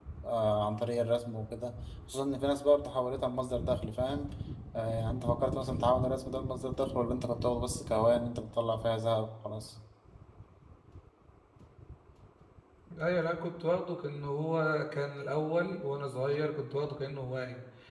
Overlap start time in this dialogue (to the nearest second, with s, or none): none